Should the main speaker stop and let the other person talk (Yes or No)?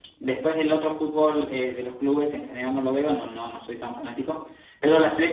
No